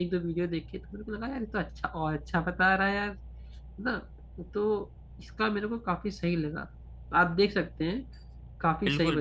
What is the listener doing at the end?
taking over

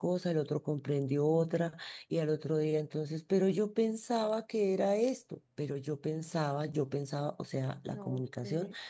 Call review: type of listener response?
listening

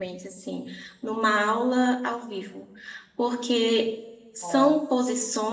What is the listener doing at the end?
listening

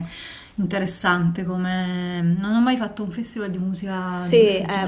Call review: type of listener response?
taking over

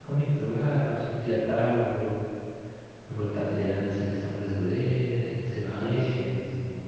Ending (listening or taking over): taking over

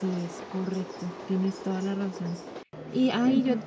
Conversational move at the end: listening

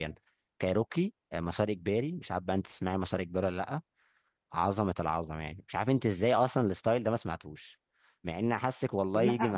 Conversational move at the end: taking over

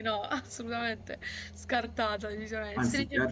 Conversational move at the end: taking over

